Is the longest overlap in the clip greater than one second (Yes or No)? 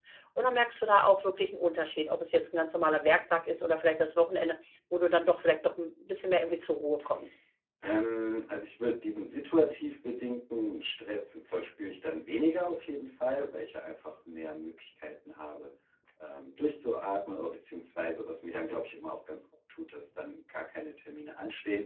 No